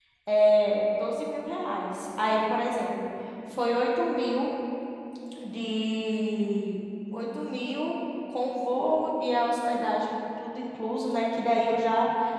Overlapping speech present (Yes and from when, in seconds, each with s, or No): No